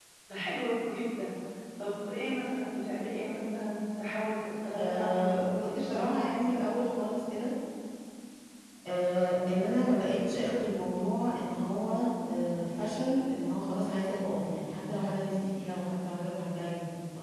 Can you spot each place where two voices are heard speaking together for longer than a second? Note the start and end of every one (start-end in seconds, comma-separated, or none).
4.8-6.2